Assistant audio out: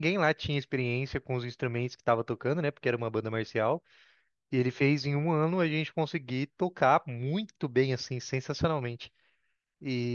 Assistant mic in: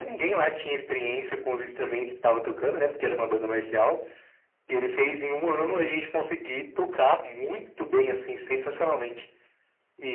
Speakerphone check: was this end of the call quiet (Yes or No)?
Yes